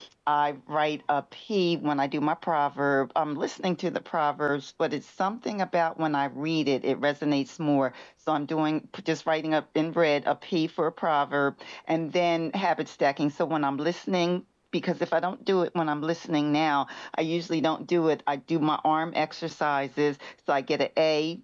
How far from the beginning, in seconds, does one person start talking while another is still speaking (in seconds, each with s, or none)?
none